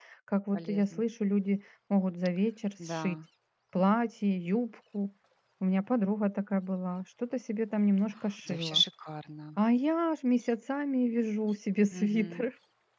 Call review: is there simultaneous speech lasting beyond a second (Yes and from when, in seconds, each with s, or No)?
No